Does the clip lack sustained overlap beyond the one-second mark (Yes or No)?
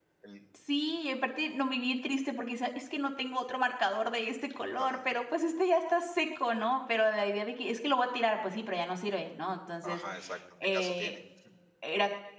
Yes